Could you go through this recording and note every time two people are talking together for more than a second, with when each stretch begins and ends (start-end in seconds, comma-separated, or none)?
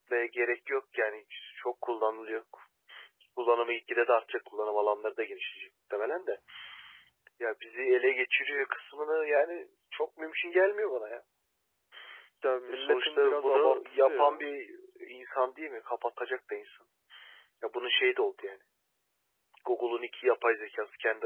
12.7-14.4